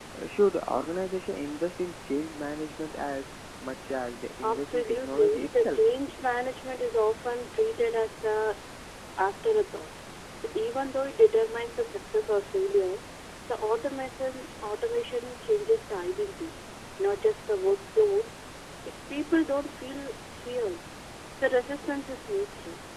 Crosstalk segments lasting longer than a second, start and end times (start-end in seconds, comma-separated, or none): 4.4-5.8